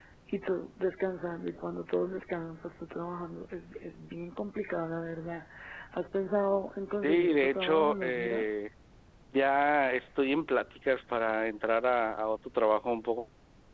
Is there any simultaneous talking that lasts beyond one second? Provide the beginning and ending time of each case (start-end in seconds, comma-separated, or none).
7.0-8.4